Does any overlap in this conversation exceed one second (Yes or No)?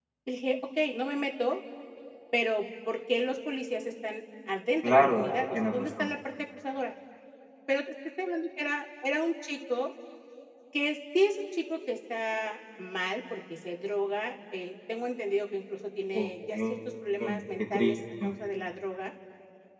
Yes